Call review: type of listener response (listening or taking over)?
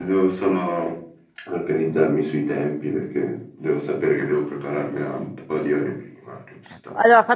taking over